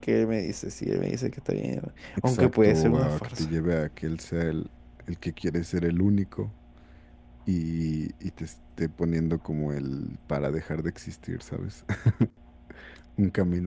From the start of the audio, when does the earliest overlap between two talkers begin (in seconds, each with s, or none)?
2.2 s